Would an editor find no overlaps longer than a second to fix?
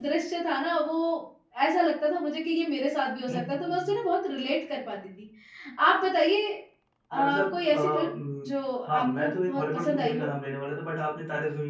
No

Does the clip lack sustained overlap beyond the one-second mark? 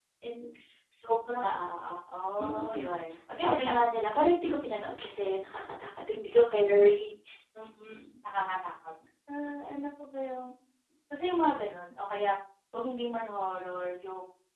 Yes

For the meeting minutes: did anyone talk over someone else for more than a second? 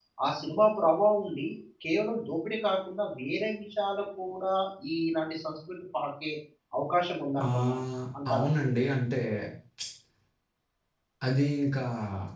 No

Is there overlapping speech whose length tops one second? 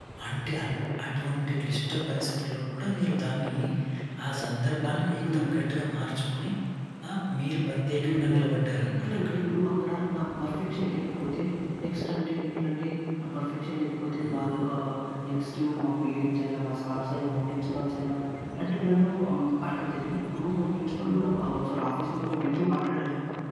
No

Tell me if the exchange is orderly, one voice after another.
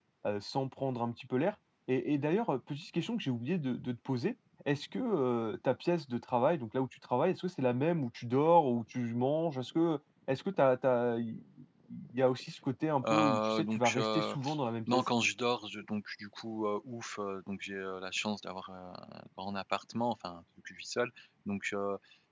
No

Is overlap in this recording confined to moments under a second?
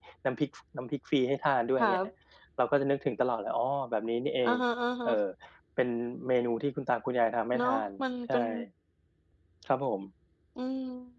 Yes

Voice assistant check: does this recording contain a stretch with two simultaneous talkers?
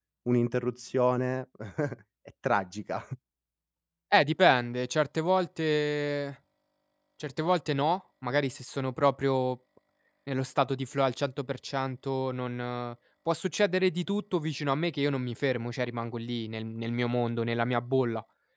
No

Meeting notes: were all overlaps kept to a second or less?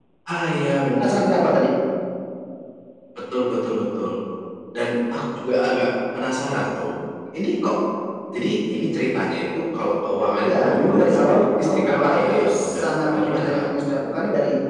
No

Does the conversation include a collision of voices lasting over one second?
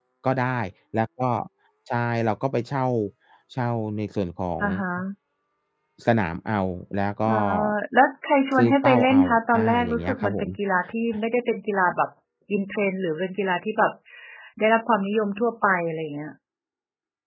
Yes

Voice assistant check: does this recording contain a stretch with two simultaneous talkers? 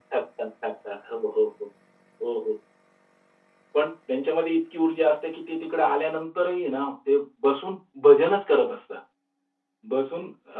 No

